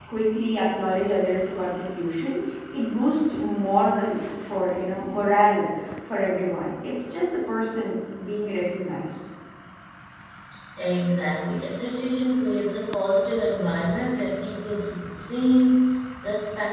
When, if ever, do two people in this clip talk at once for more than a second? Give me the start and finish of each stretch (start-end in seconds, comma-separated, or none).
none